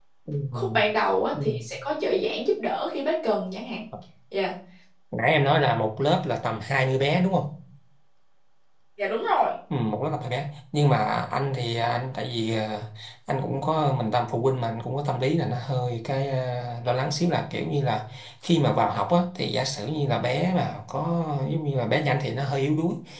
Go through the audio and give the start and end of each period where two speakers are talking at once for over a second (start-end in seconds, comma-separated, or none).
none